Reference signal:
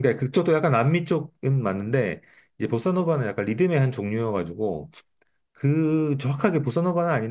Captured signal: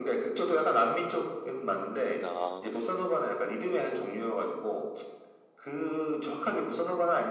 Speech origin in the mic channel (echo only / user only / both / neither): both